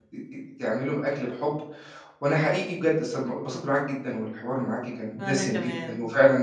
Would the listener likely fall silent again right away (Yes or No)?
Yes